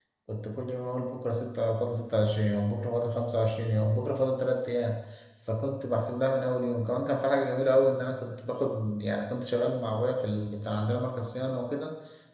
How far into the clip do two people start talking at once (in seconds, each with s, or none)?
none